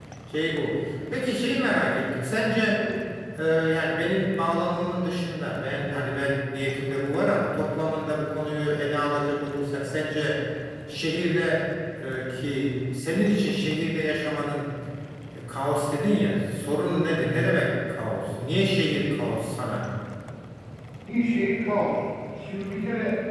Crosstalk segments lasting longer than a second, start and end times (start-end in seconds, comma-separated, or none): none